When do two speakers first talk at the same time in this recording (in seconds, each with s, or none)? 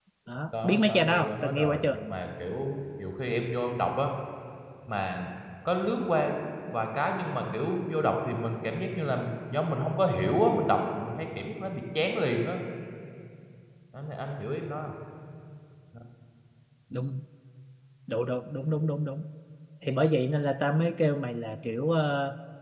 0.6 s